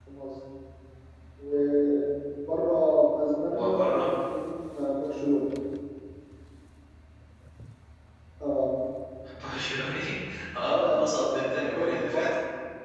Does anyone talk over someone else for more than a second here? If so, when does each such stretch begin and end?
10.6-12.3

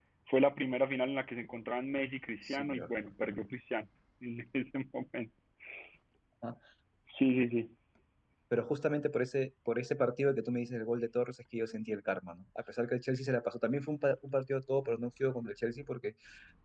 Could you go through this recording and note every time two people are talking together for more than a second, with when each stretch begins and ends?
none

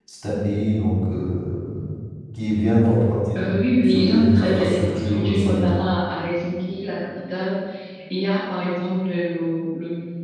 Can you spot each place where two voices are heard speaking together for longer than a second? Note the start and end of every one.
3.9-5.7

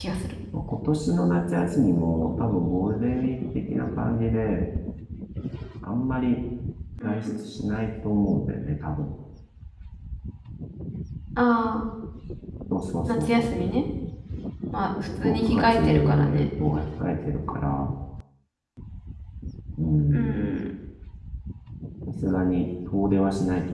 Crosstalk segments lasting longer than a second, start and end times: 15.2-16.5

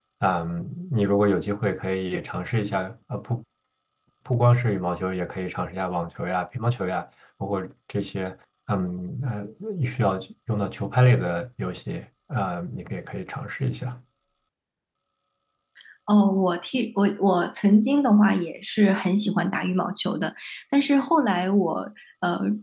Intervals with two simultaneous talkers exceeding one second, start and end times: none

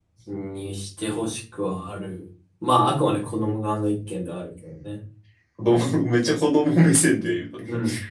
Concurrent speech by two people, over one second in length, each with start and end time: none

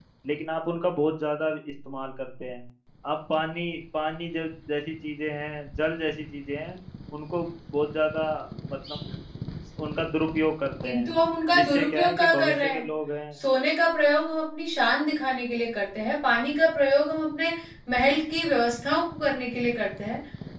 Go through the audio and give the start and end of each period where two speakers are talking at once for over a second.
11.5-12.8

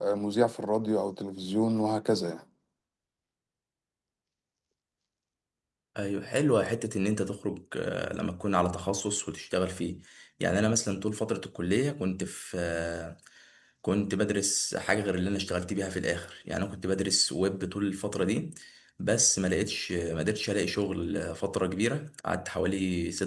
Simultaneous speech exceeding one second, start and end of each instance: none

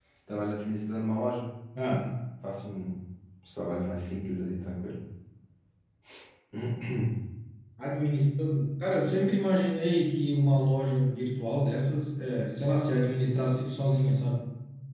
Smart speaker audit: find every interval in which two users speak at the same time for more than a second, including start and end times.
none

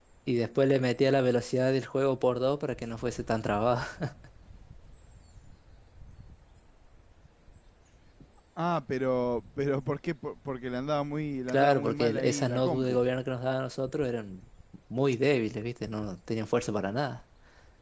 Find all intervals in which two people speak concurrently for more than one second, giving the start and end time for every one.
11.5-13.0

